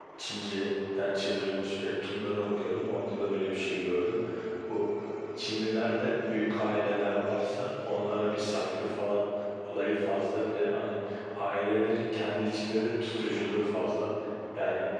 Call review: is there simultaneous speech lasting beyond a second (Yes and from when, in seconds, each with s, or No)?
No